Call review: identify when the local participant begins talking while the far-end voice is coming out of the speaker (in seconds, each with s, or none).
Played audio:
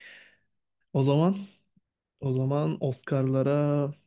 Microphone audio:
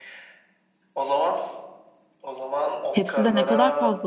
2.9 s